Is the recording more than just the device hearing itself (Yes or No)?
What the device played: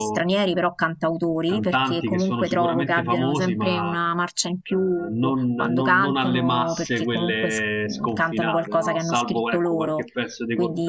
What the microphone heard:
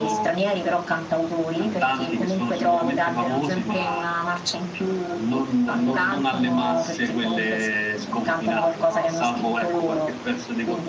No